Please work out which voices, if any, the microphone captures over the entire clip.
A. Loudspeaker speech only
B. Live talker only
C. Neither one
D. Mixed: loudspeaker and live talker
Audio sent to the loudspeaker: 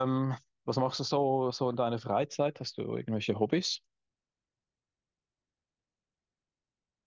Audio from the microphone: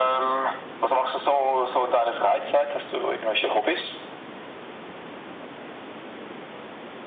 A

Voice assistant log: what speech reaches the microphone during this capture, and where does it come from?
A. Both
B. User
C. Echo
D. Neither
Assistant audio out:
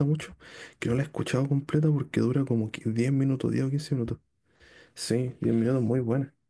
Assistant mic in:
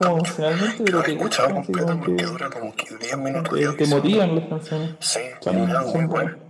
A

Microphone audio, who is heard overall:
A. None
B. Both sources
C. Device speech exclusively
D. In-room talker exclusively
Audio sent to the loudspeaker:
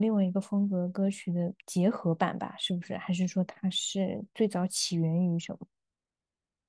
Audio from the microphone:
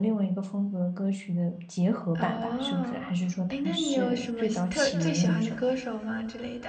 B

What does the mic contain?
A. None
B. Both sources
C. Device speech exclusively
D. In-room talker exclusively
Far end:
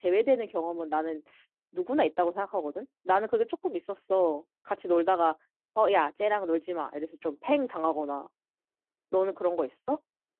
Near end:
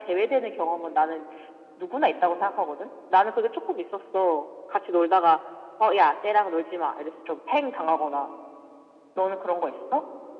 C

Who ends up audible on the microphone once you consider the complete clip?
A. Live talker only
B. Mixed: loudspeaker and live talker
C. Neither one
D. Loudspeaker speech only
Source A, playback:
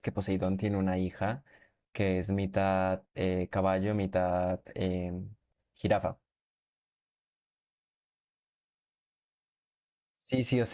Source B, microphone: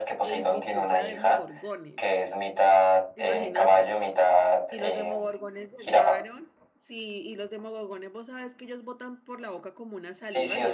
B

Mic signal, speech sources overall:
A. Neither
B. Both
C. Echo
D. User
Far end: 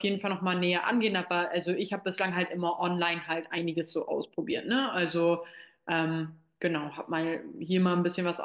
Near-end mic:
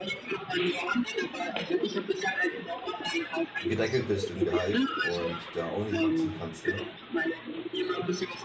B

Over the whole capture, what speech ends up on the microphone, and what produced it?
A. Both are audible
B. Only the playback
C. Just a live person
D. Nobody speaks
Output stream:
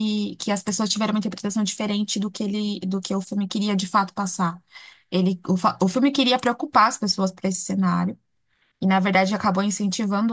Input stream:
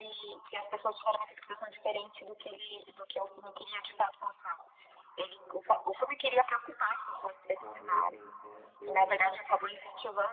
A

